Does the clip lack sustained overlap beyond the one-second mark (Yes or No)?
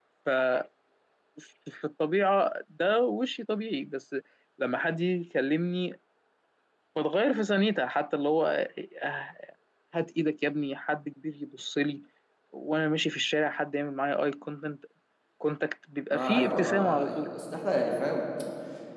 No